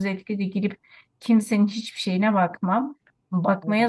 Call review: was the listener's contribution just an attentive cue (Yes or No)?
Yes